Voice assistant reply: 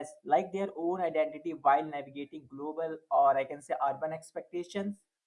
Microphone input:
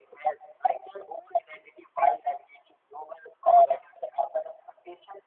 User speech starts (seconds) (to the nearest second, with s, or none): none